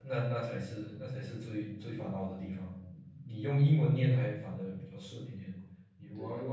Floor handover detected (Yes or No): No